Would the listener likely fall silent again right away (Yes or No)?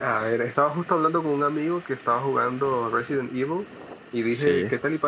Yes